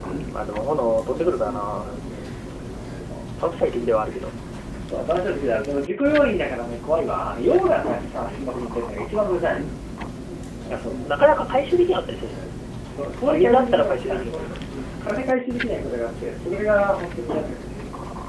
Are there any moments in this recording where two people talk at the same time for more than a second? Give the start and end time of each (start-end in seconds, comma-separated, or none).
13.3-14.5